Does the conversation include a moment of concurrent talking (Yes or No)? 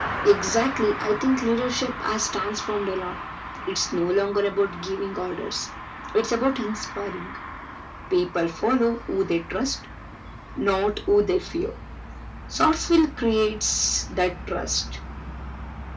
No